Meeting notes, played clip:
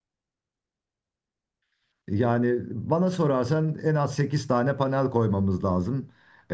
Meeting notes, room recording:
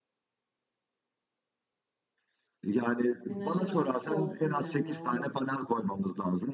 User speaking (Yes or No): Yes